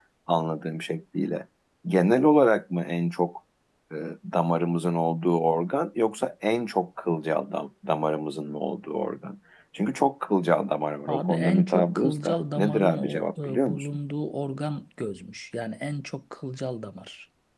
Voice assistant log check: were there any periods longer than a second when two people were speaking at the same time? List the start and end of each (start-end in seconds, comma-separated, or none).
11.1-13.9